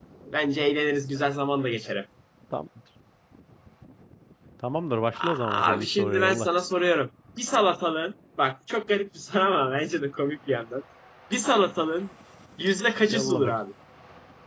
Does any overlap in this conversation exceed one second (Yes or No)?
Yes